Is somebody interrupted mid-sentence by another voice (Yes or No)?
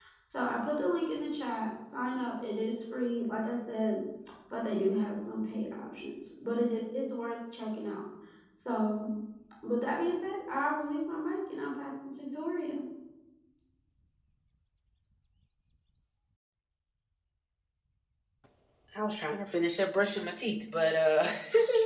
No